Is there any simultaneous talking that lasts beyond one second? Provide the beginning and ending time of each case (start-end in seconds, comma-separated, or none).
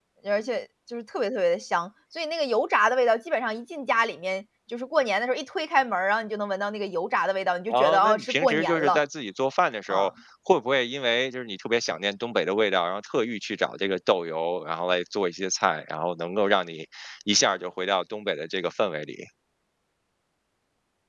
7.7-9.0